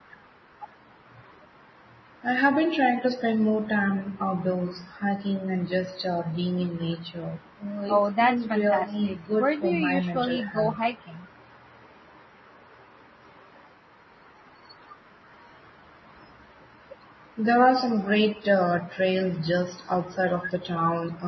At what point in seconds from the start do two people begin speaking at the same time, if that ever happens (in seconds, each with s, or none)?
7.9 s